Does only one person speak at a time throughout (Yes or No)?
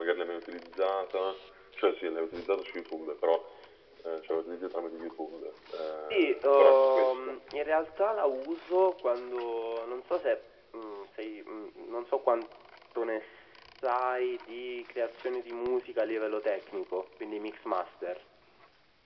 No